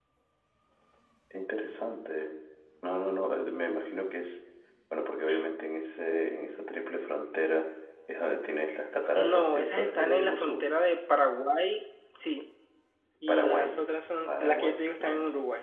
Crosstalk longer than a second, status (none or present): present